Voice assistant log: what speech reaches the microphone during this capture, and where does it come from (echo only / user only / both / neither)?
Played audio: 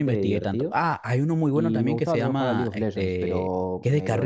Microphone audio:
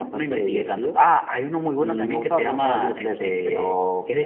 echo only